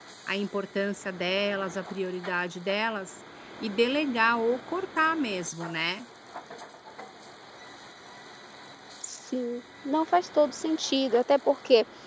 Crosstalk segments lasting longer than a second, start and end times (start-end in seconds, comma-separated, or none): none